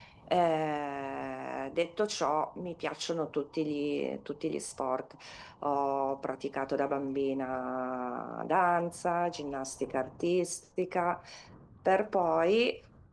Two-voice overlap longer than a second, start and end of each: none

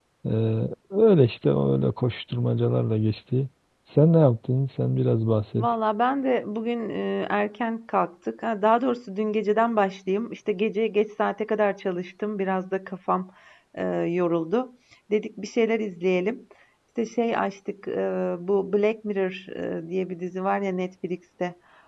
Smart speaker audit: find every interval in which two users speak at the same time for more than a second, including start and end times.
none

